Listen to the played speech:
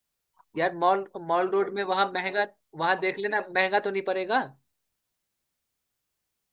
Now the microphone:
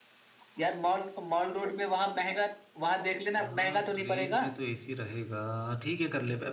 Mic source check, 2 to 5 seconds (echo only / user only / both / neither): both